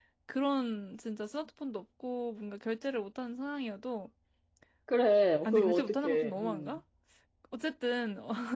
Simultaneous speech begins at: 5.5 s

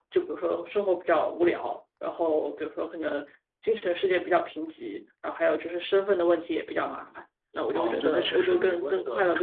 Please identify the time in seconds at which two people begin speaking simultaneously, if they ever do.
7.8 s

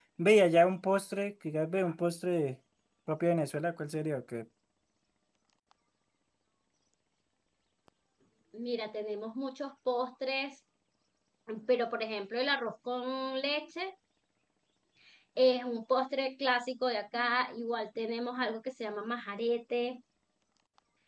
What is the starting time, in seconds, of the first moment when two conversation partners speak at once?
none

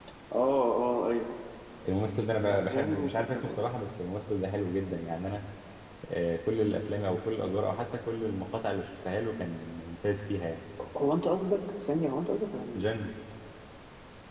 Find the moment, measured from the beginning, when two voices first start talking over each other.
2.4 s

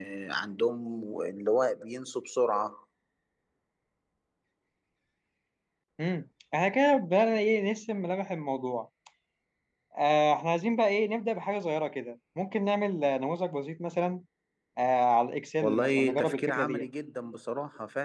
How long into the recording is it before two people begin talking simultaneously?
15.6 s

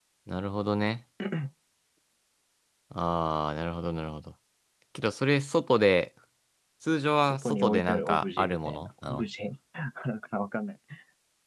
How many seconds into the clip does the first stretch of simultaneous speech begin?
7.3 s

